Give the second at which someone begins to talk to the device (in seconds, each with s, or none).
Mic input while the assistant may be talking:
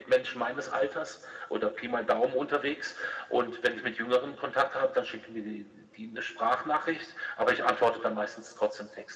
none